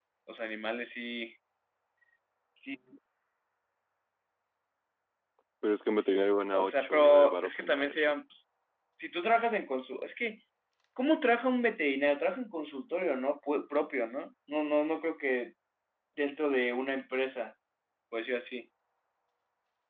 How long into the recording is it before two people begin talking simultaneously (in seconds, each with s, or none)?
6.5 s